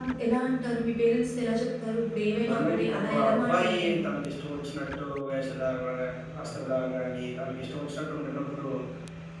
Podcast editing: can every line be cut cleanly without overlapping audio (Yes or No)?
No